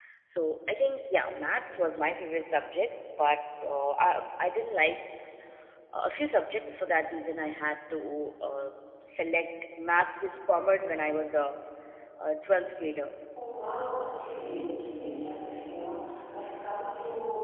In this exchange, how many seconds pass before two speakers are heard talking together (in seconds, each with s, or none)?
none